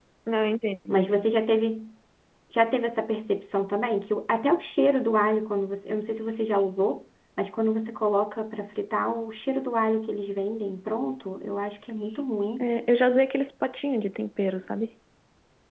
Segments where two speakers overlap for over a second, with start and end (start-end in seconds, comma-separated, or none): none